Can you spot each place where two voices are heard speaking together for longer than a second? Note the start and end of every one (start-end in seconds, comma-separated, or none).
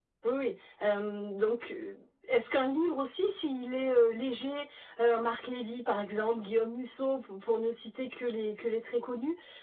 none